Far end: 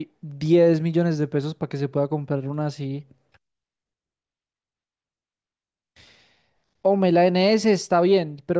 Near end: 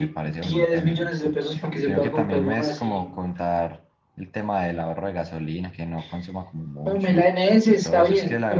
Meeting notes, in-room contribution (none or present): present